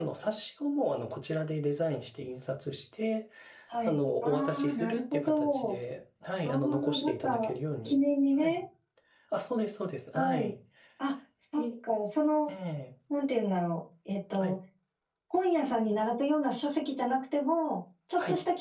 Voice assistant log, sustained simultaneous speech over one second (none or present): present